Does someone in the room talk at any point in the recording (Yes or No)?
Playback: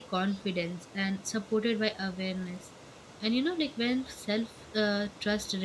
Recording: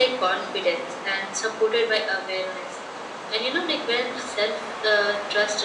No